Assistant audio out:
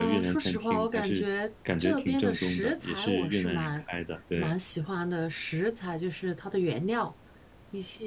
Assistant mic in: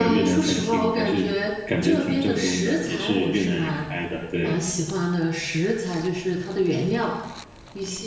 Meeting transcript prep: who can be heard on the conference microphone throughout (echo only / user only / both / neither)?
echo only